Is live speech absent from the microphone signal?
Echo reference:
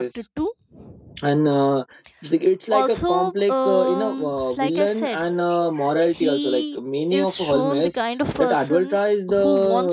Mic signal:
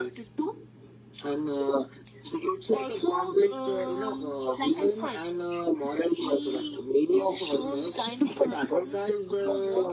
Yes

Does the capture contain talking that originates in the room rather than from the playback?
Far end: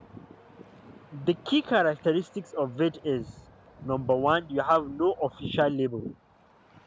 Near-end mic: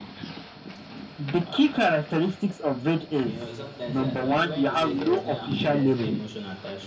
Yes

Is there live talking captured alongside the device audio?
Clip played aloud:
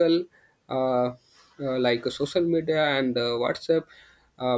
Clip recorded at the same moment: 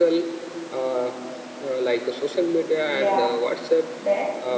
Yes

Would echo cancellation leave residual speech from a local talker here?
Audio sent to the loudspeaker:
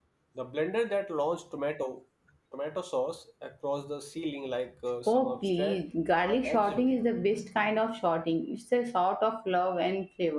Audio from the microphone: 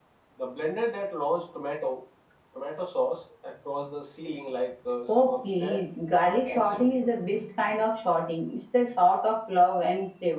No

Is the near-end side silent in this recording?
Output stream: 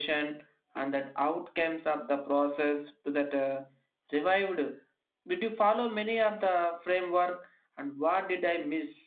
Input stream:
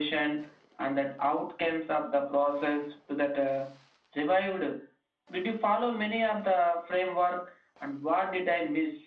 Yes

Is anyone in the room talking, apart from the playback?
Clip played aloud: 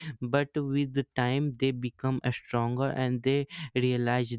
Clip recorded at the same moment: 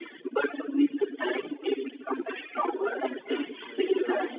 Yes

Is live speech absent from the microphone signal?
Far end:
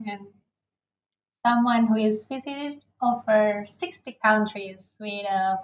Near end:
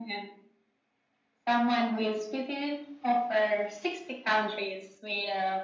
Yes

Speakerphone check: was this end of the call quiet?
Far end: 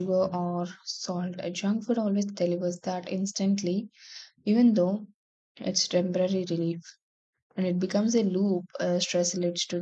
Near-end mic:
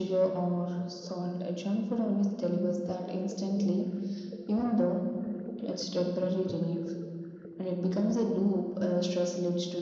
Yes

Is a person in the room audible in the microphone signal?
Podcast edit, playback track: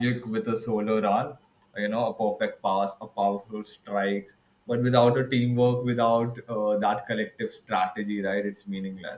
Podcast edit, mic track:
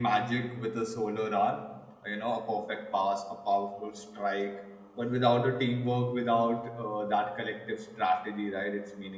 No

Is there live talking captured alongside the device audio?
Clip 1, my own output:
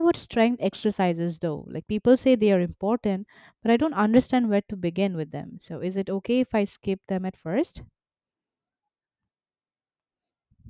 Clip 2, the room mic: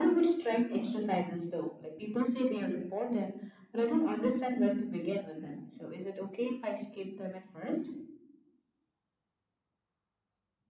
No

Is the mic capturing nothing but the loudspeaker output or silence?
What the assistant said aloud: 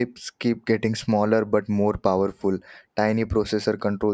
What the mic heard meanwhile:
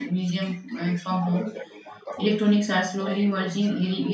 No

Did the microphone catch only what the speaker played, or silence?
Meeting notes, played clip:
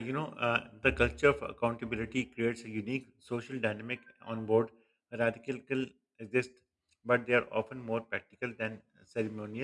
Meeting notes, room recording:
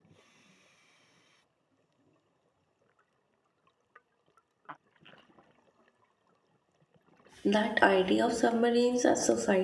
No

